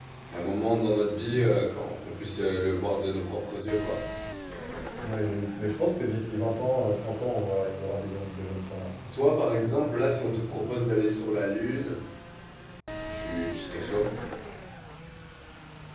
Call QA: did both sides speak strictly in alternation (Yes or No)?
Yes